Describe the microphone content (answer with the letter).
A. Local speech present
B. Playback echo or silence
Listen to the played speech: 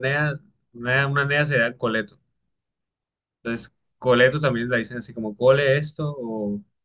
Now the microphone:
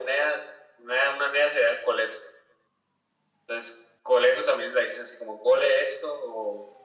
B